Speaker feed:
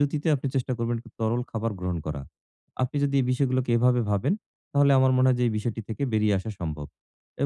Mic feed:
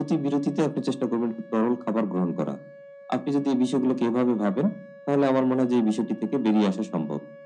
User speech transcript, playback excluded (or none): none